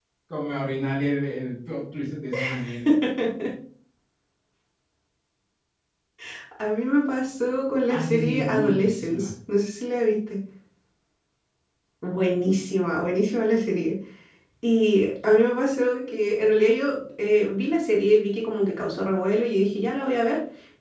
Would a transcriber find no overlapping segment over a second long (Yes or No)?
No